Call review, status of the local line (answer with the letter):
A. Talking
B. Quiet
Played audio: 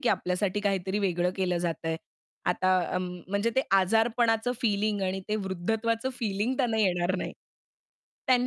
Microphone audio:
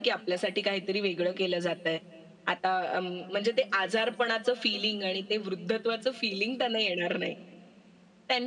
B